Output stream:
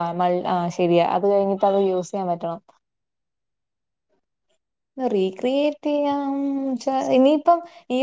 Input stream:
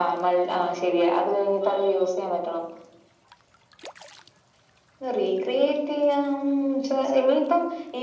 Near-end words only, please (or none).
none